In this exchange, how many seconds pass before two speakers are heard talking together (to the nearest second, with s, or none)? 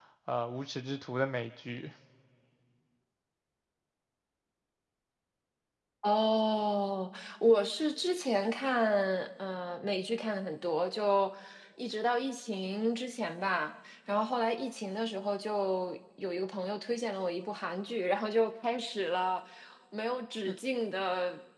none